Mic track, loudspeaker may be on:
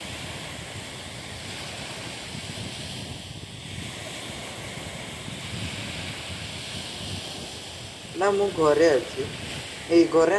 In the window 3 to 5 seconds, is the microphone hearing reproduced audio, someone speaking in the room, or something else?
neither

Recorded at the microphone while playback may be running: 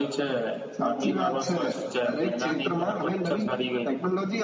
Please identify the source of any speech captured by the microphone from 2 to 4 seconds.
echo only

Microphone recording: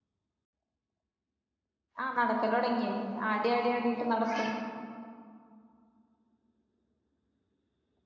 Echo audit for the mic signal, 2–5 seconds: user only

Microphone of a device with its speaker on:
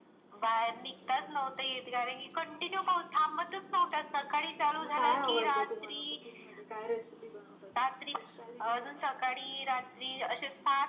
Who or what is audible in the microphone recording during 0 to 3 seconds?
echo only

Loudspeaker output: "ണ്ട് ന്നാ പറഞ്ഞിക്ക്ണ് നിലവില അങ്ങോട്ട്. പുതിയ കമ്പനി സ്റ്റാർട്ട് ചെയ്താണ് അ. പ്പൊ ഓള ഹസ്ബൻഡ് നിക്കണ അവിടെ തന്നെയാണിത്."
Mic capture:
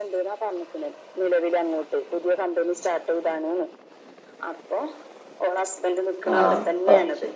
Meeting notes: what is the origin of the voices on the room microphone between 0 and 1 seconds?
echo only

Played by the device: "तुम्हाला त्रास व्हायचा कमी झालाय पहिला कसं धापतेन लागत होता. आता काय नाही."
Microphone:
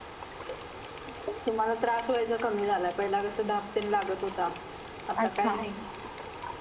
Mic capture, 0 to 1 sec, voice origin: neither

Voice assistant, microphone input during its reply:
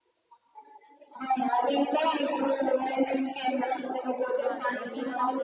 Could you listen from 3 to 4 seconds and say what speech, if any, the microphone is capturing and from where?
echo only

